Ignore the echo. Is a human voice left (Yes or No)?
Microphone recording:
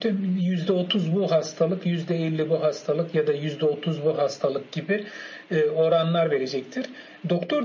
No